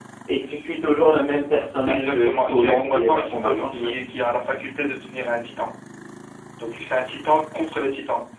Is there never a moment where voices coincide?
No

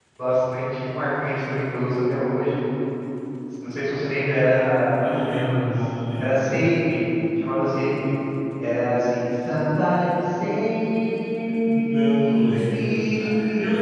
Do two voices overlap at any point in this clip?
Yes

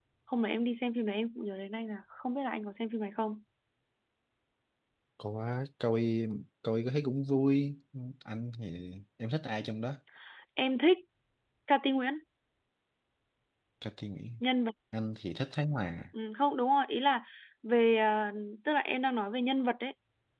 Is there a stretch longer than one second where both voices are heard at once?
No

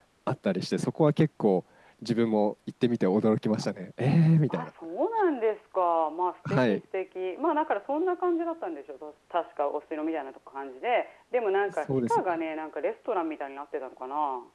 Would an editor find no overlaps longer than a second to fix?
Yes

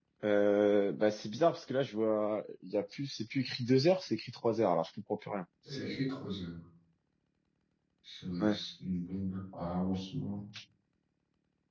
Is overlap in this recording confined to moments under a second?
Yes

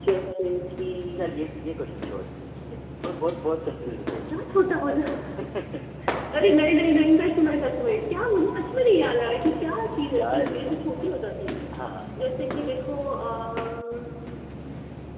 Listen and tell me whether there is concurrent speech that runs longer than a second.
No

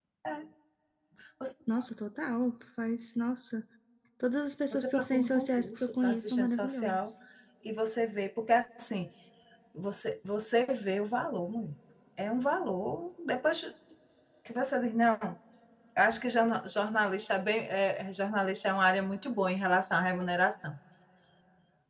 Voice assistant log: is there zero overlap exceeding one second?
No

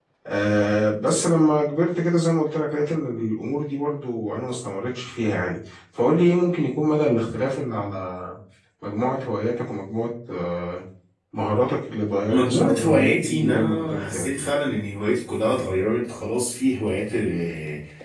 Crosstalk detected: Yes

